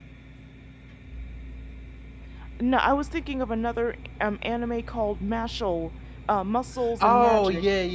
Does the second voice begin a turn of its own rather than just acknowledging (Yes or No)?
Yes